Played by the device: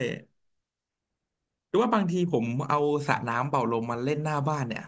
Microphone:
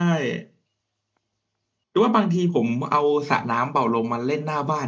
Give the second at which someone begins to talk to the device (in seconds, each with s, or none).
none